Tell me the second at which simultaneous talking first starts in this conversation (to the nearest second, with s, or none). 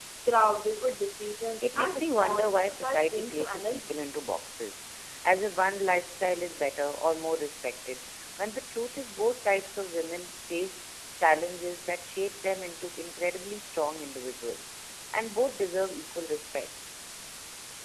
2 s